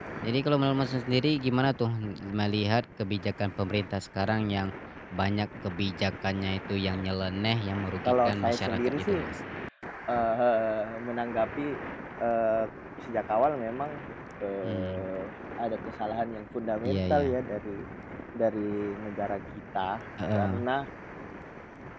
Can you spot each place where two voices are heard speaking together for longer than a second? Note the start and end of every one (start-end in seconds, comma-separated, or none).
8.1-9.2